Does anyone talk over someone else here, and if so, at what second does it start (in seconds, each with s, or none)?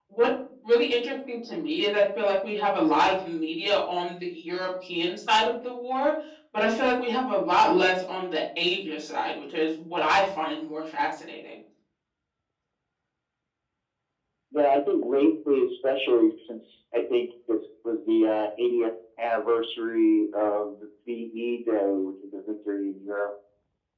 none